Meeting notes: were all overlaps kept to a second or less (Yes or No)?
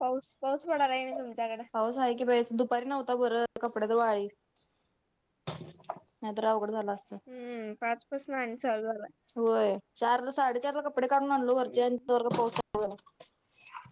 Yes